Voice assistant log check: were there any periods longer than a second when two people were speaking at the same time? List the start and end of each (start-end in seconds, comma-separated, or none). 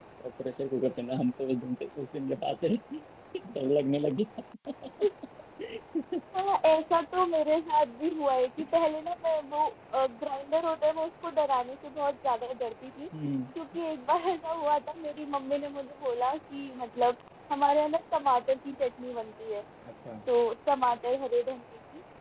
none